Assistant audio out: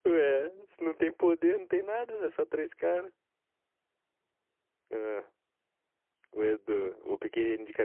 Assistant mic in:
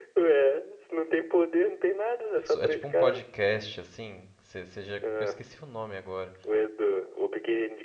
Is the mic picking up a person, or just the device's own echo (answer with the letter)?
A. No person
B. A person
B